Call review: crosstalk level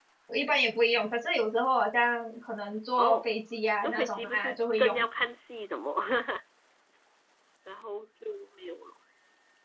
present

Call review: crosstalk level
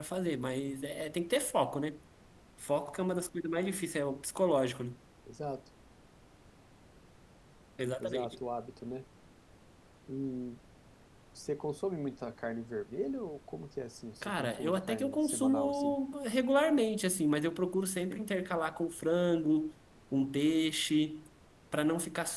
present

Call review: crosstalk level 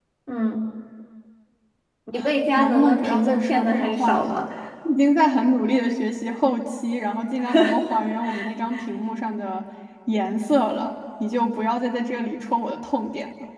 present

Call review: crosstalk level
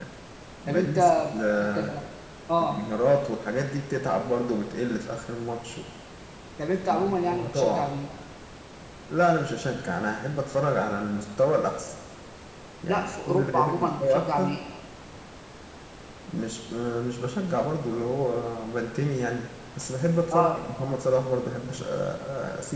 present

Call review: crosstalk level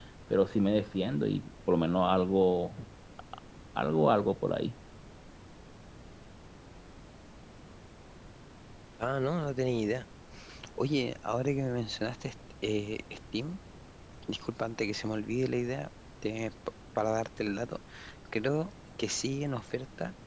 none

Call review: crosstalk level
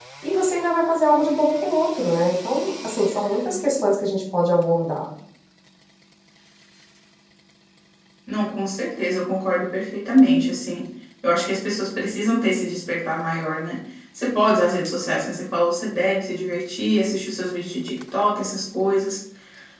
none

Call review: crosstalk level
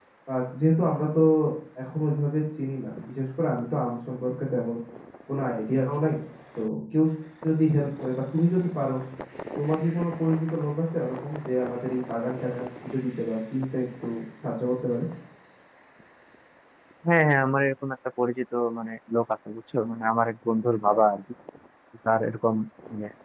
none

